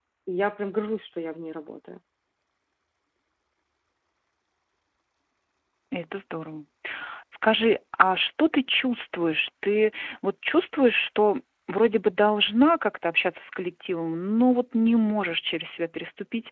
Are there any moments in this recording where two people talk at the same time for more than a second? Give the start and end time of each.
none

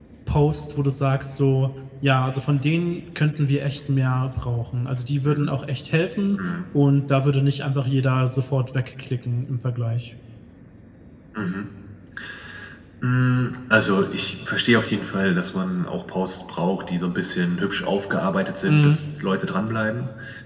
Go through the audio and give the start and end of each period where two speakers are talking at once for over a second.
none

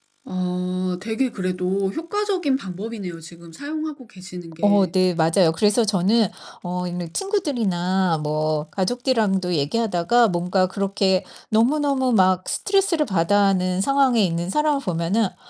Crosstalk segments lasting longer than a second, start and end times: none

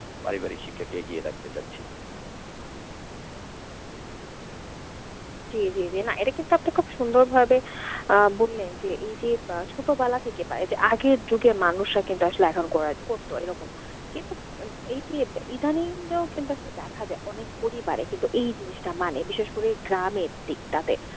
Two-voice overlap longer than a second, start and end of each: none

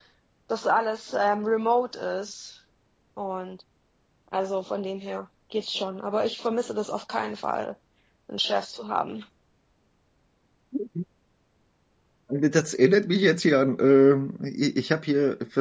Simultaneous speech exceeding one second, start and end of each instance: none

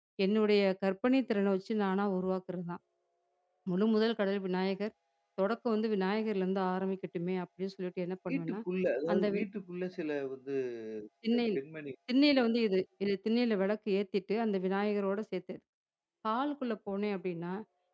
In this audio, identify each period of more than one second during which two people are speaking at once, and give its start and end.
none

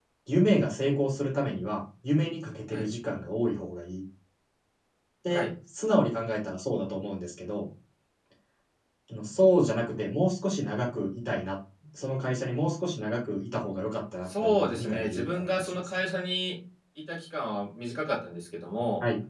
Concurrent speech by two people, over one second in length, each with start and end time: 14.3-16.0

